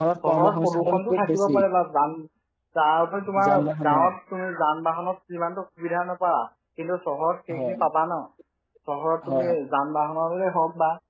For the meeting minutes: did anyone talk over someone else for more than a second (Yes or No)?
Yes